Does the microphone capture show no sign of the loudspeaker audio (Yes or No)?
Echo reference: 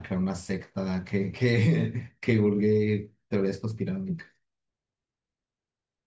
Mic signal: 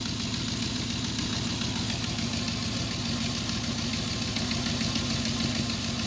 Yes